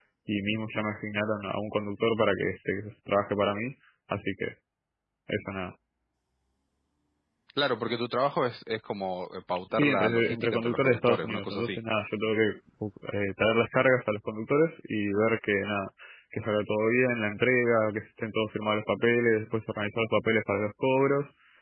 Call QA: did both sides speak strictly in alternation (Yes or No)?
No